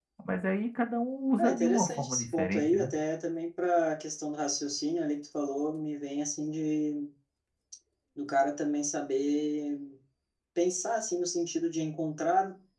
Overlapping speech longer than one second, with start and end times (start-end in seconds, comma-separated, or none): 1.4-2.9